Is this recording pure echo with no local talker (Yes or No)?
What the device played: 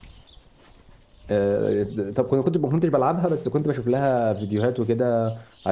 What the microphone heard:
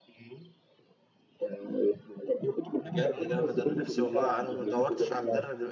No